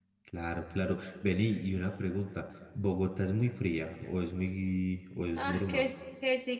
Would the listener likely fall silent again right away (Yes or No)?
No